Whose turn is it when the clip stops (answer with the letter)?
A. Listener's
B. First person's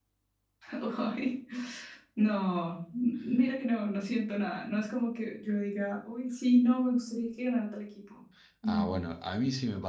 A